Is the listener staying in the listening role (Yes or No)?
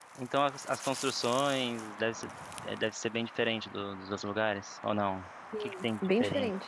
No